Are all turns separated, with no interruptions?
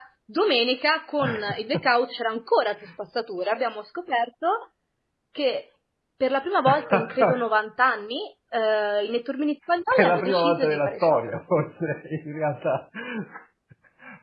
No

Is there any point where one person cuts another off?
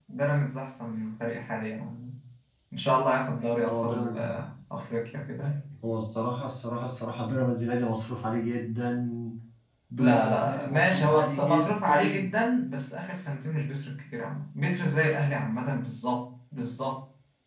Yes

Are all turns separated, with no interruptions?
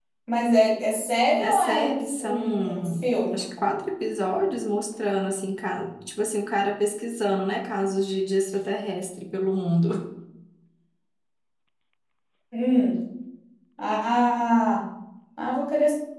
No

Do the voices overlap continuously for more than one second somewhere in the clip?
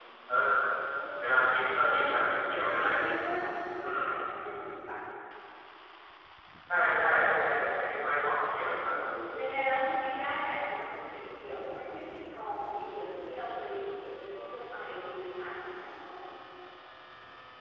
Yes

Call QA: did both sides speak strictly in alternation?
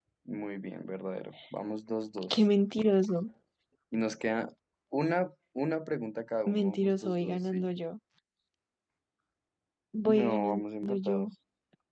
No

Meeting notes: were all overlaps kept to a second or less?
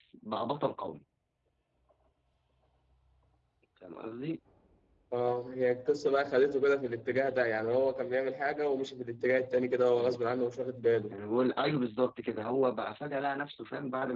Yes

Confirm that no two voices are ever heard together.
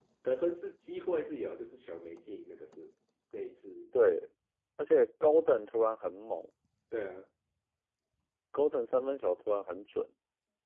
Yes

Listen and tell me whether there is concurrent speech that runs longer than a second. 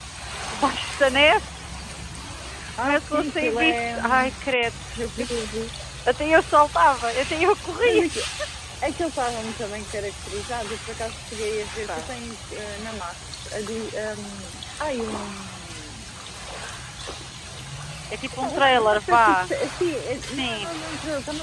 Yes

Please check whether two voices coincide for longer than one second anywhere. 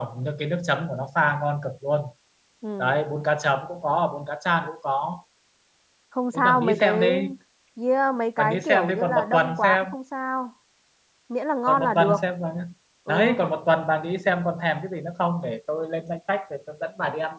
Yes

